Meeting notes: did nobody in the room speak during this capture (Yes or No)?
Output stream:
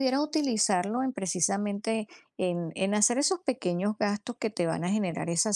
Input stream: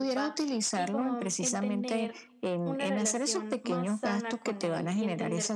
No